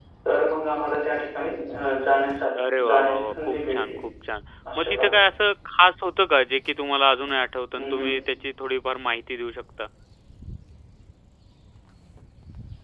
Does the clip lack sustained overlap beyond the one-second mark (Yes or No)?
No